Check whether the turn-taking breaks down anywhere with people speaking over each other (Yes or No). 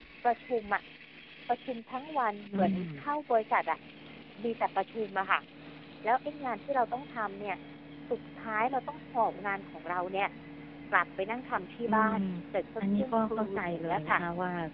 Yes